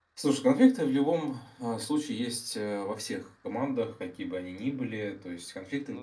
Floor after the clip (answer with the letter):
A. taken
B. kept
B